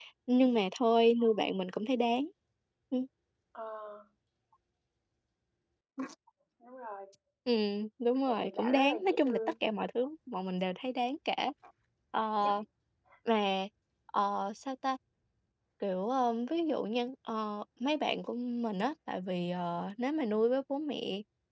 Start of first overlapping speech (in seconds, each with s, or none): 8.3 s